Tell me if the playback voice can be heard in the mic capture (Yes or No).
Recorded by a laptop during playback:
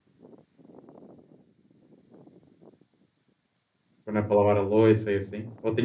No